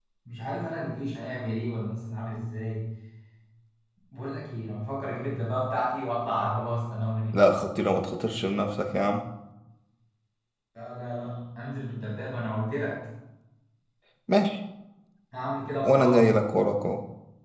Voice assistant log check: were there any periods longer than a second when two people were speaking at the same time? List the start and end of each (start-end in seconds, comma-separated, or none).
none